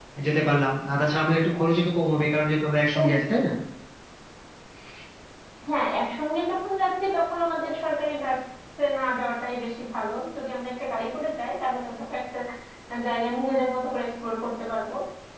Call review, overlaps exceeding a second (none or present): none